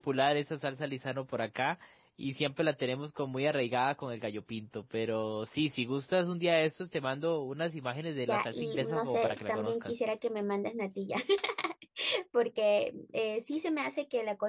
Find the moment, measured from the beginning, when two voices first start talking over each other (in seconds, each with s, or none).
8.3 s